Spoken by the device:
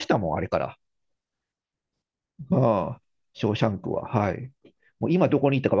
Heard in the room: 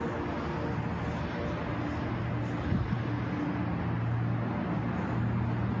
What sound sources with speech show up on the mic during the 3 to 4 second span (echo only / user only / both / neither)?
neither